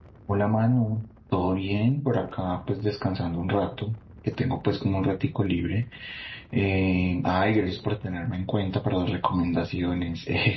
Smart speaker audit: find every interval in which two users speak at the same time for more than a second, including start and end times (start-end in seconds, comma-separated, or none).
none